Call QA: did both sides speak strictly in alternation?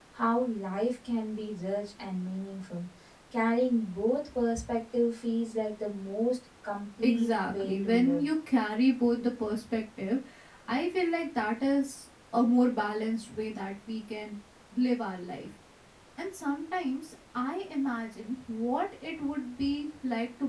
No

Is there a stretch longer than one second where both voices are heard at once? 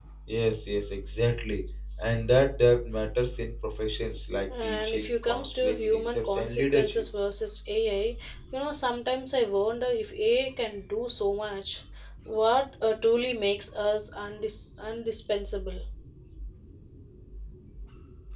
Yes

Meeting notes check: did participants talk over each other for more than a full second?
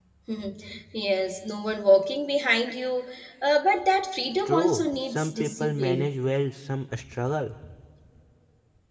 Yes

